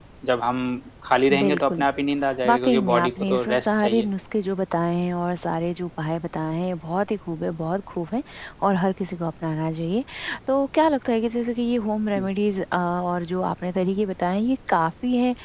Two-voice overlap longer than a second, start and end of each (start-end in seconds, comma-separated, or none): 2.5-4.1